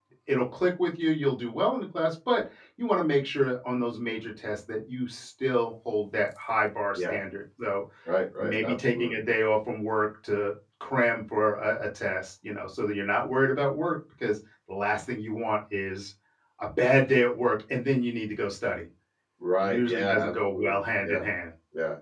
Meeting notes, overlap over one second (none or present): present